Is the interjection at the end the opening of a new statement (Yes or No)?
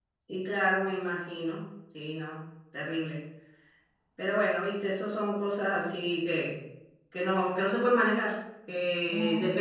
No